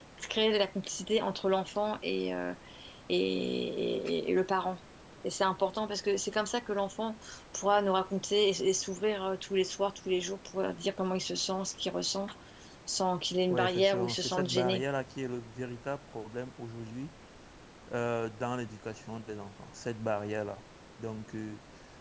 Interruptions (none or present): present